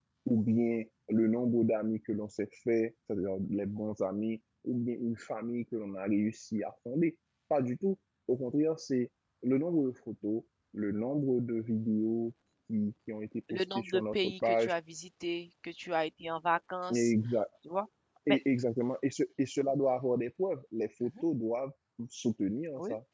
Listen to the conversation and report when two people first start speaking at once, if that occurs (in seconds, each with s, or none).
13.5 s